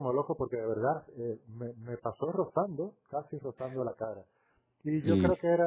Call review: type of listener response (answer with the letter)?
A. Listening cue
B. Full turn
A